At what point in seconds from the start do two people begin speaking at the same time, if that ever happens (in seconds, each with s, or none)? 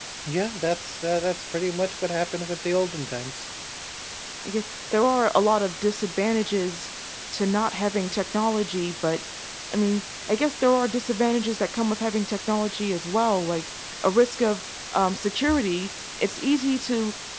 none